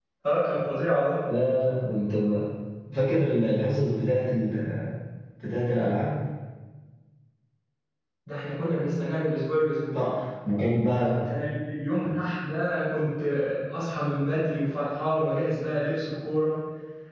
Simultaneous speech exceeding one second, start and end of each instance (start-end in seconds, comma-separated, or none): none